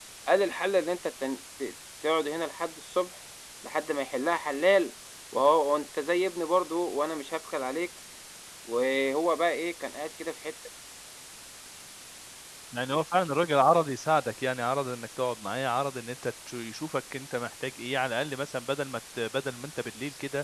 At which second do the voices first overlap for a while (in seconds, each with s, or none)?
none